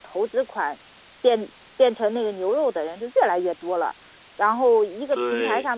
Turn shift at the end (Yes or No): No